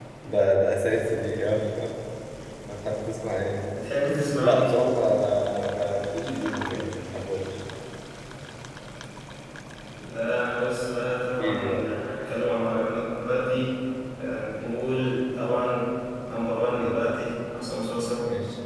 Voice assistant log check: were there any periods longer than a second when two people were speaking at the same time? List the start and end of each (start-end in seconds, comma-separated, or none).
none